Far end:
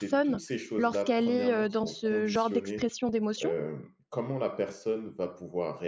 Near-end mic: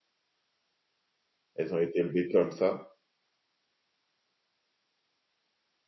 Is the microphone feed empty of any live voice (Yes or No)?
No